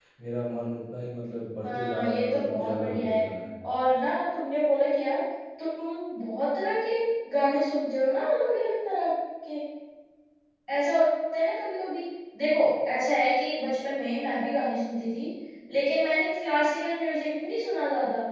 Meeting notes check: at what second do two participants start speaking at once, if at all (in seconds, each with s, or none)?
1.6 s